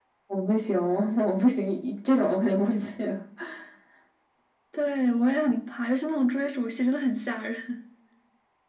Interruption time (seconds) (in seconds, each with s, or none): none